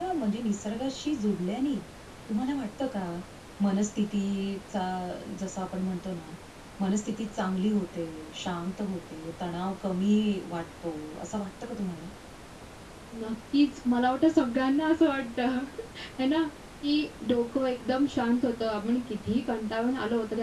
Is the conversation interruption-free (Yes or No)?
Yes